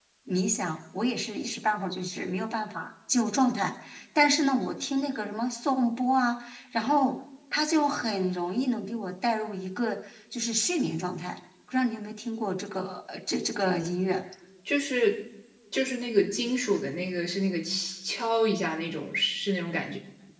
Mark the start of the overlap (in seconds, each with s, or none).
none